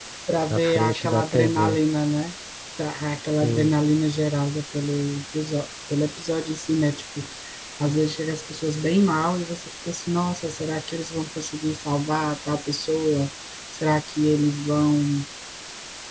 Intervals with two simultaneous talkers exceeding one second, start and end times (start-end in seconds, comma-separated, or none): 0.5-1.8